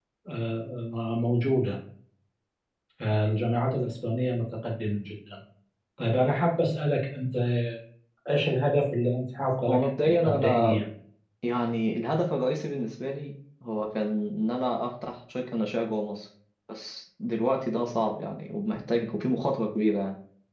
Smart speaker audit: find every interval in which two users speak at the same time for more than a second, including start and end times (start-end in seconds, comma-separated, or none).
9.6-10.8